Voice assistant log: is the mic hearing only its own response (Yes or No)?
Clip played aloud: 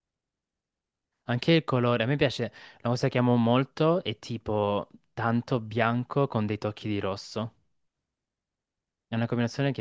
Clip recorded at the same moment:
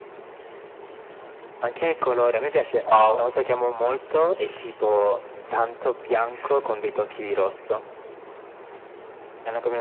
No